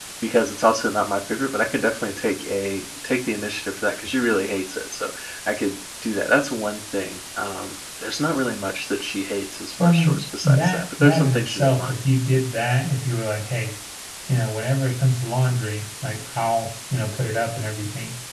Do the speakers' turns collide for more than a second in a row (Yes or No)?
Yes